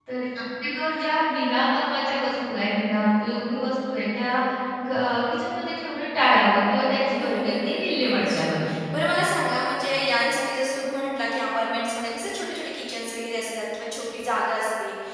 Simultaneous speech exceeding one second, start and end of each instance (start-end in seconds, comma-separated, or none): 7.2-8.5